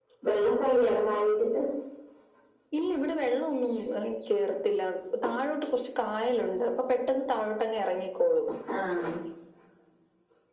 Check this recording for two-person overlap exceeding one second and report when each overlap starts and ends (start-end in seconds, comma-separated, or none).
none